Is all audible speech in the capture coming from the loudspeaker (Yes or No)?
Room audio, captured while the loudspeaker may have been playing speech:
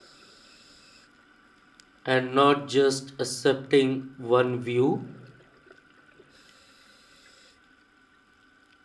No